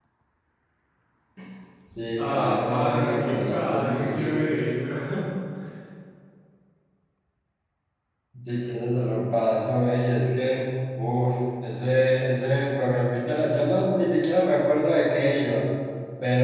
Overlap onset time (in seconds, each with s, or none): 2.2 s